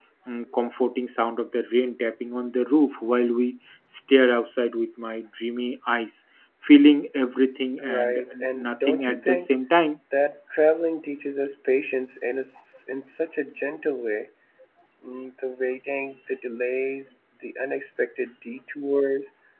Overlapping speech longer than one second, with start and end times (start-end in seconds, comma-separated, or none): 7.8-9.5